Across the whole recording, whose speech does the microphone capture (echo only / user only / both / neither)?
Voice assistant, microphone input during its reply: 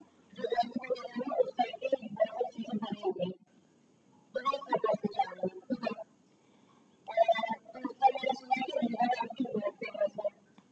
echo only